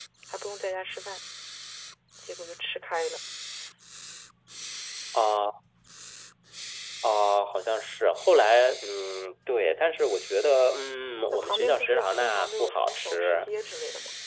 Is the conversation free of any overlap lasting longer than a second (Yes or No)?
No